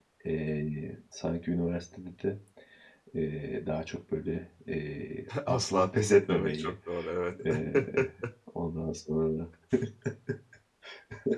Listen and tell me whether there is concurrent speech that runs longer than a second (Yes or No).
Yes